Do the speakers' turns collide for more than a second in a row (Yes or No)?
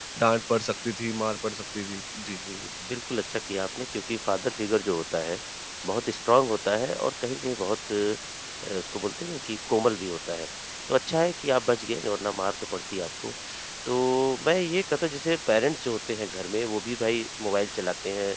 No